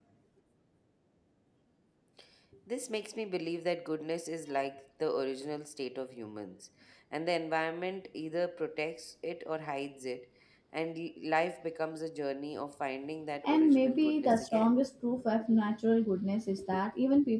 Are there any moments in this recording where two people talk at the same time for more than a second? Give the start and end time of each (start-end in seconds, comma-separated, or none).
13.5-14.8